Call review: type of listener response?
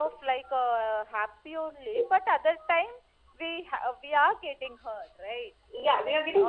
taking over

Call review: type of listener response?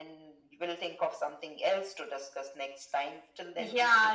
taking over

